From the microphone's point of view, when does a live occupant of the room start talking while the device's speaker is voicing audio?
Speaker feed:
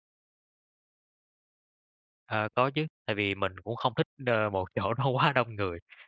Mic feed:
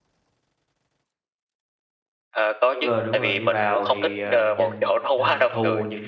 3 s

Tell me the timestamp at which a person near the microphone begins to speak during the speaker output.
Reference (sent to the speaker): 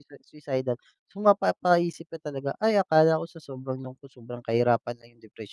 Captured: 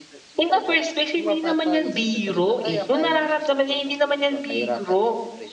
0 s

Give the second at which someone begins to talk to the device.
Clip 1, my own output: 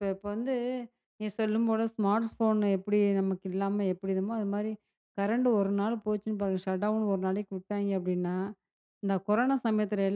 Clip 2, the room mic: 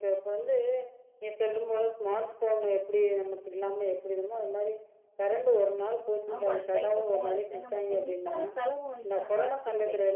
6 s

